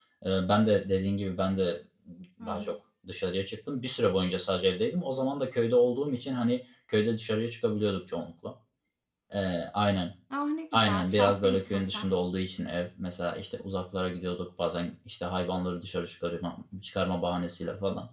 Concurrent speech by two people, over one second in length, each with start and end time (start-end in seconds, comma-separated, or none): 10.7-12.1